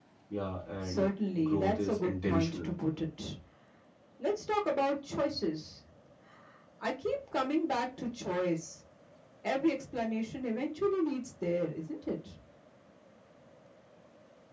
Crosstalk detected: Yes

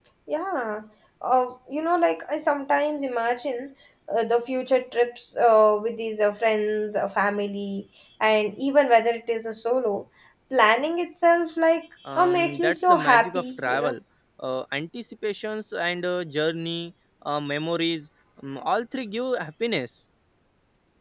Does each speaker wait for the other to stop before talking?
No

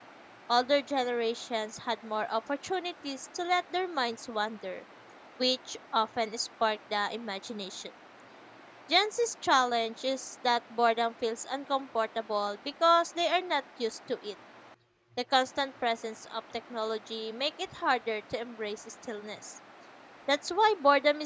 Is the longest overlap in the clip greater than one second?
No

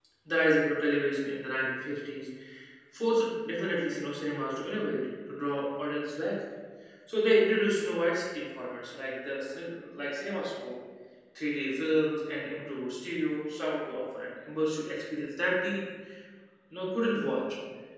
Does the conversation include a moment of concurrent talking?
No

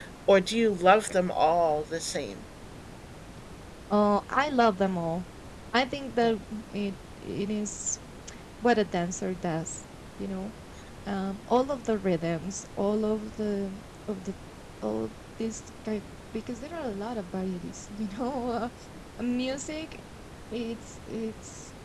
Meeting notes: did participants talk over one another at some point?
No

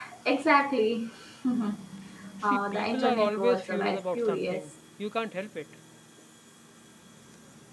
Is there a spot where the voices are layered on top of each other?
Yes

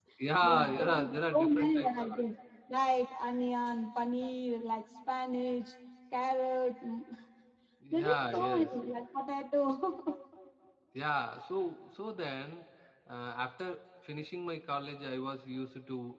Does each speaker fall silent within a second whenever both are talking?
No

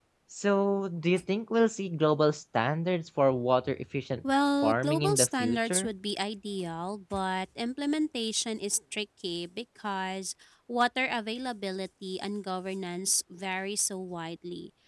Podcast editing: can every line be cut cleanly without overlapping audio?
No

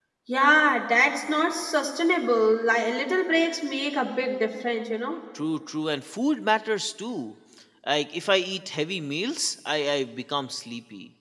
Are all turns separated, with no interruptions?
Yes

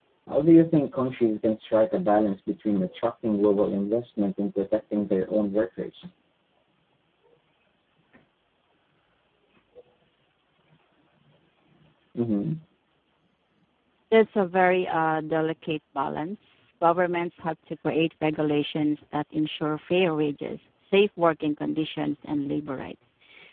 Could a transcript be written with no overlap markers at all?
Yes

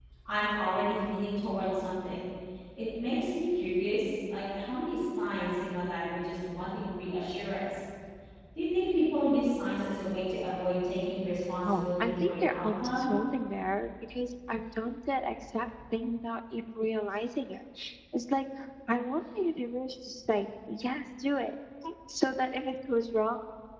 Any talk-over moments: Yes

